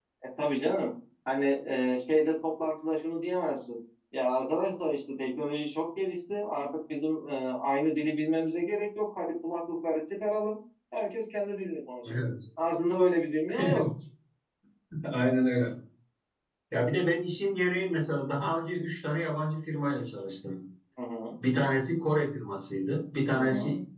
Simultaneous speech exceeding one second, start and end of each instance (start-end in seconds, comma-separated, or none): none